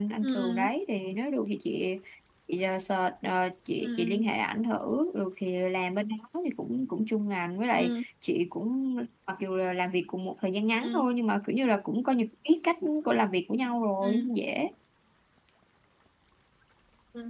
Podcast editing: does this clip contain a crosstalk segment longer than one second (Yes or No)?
No